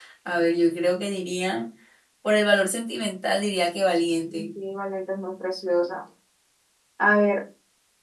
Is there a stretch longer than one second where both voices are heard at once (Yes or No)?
No